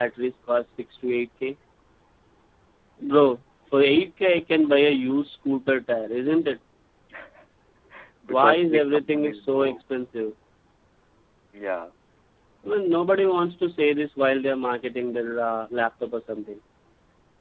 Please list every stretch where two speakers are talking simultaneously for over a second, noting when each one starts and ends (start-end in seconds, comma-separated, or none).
8.3-9.7